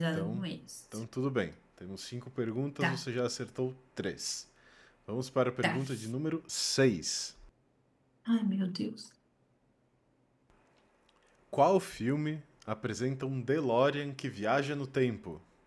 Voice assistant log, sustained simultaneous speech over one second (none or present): none